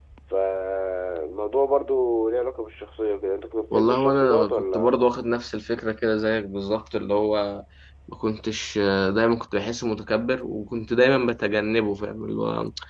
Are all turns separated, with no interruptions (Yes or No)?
No